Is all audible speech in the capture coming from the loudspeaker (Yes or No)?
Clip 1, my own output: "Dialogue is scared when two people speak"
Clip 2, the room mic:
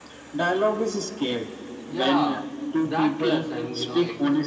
No